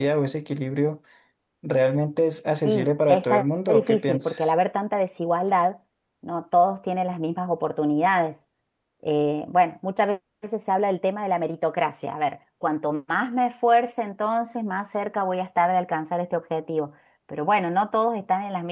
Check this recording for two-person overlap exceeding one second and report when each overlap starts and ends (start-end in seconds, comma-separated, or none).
2.6-4.5